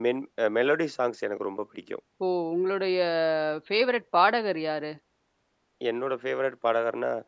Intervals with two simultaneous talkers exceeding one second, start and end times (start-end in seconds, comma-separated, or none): none